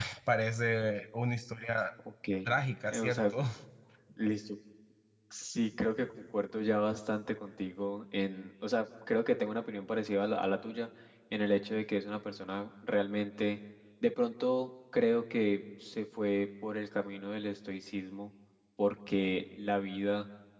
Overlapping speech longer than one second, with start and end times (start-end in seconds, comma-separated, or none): none